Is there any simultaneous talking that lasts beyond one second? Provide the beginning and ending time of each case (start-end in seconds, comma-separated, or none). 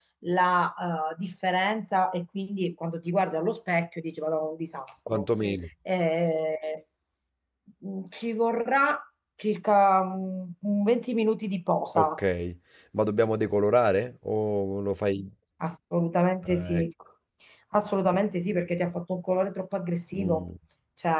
none